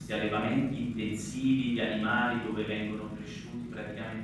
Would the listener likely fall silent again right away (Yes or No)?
Yes